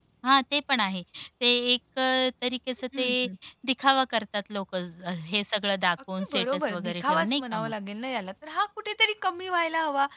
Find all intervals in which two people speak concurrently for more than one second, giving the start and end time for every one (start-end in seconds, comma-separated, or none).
6.2-7.7